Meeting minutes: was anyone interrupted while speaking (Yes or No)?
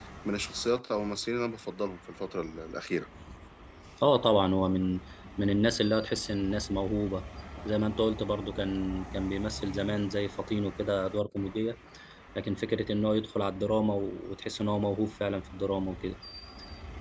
No